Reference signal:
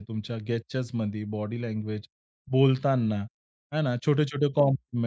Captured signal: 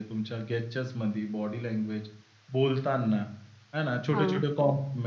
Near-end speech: present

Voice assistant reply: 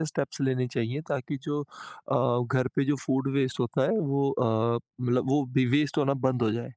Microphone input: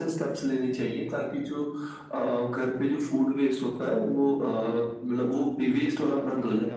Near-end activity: present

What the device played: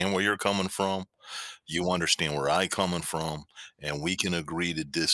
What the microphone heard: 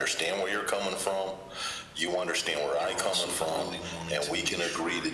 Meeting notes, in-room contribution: present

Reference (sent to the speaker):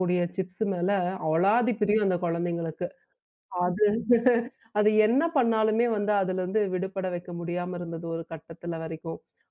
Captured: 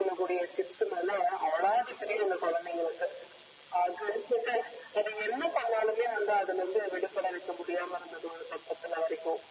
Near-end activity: none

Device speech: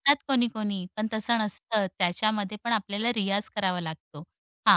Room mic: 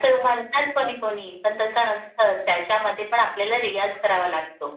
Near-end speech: none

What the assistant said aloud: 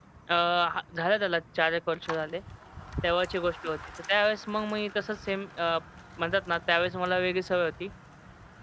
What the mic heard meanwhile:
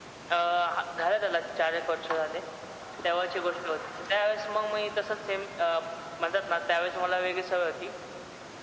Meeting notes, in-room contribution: none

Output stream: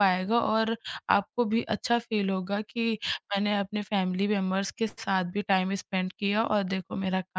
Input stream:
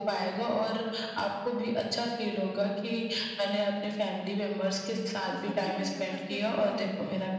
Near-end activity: present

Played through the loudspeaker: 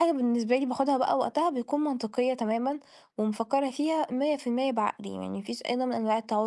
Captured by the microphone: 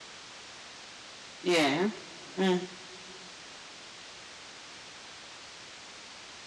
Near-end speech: present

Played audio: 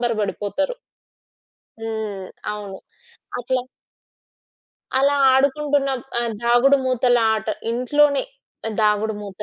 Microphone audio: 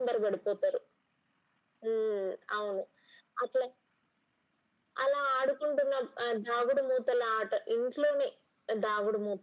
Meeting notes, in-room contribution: none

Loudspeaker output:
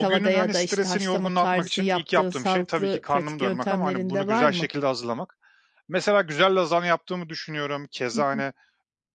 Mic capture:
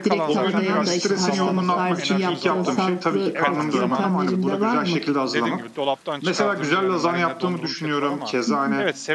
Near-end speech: present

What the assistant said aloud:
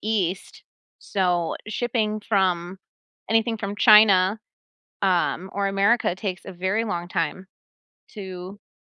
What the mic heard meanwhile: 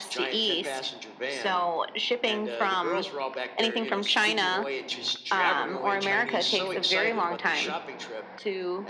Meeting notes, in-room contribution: present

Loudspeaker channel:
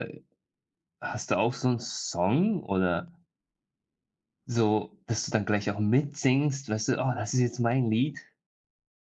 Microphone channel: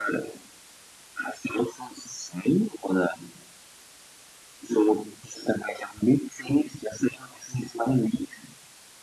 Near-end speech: none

